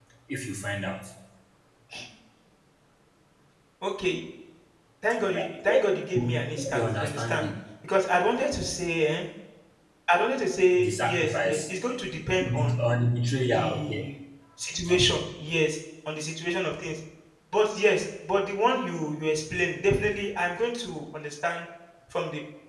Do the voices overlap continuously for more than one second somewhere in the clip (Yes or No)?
Yes